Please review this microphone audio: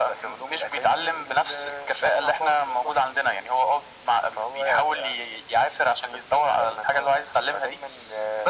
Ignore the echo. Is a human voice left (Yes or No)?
No